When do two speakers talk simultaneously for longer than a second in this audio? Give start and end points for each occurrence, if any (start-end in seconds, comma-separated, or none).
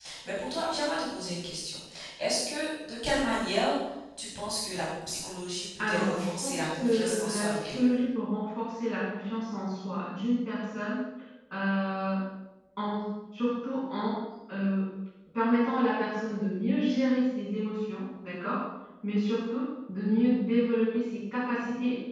5.8-7.9